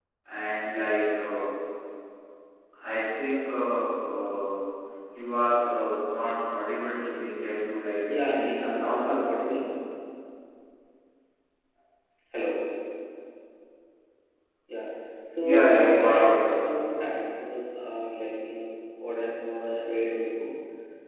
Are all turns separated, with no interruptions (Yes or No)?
No